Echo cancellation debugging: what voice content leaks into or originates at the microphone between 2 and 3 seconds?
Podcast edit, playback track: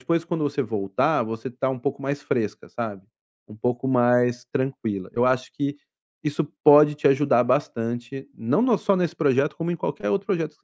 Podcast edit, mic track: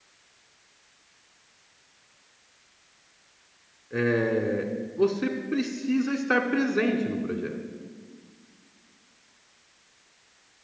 neither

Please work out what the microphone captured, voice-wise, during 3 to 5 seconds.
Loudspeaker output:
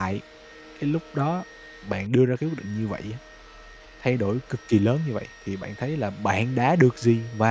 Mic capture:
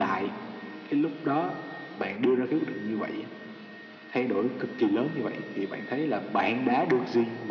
echo only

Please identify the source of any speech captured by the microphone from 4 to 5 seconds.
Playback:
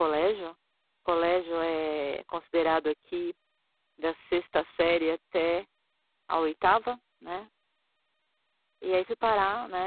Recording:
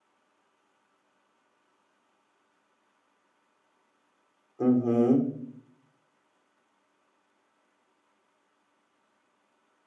user only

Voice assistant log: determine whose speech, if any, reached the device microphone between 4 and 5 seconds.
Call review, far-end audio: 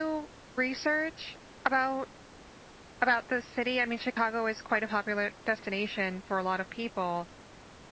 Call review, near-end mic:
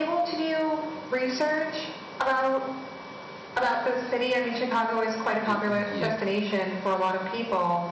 echo only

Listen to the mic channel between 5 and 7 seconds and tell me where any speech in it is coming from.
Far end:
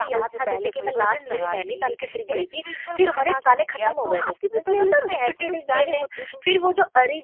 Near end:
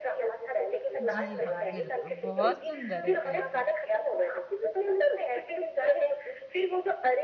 echo only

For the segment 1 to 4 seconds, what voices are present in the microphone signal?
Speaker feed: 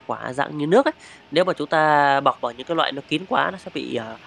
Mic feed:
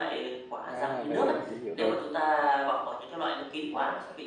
both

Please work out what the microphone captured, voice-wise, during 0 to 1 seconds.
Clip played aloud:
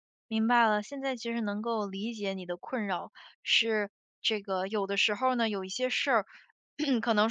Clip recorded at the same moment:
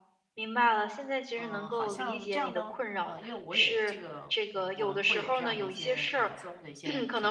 echo only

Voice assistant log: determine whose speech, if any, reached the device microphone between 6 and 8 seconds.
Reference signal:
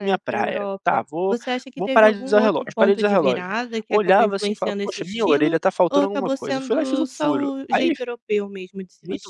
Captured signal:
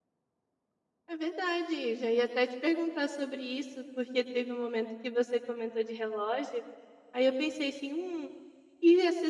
user only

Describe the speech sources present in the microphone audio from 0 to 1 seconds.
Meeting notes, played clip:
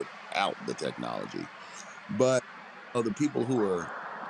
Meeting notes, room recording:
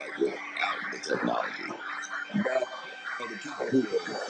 echo only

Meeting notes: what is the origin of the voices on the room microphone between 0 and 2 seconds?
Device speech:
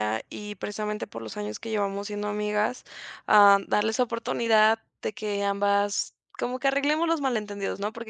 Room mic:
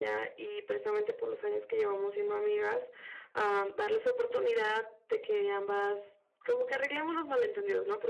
echo only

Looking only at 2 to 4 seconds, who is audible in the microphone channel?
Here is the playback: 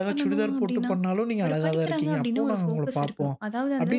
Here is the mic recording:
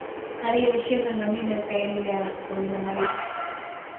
user only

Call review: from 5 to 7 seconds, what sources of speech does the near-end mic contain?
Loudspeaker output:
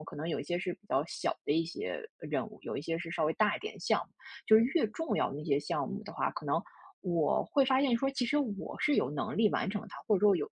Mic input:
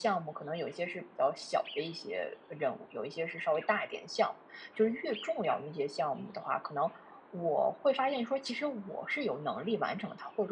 echo only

